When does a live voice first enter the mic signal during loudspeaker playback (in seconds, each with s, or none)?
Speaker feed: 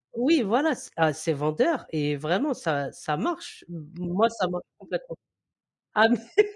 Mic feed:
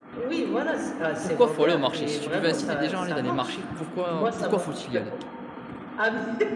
1.2 s